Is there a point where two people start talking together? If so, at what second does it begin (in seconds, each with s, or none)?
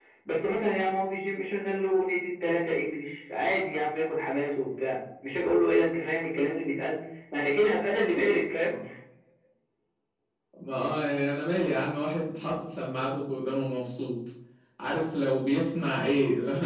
none